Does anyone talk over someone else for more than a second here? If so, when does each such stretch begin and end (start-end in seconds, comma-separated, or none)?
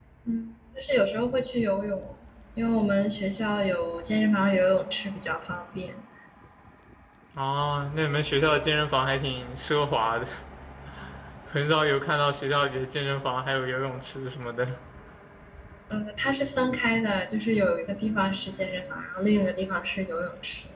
none